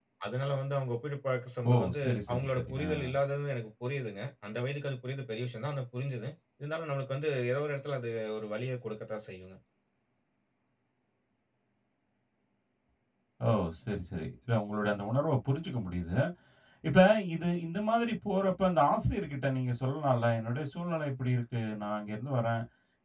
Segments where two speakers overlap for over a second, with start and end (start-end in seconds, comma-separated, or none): 1.6-2.9